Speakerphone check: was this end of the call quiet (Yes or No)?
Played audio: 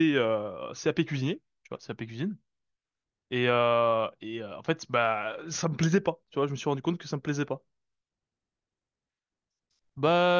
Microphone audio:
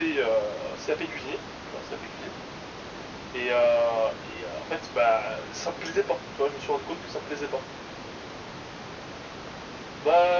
Yes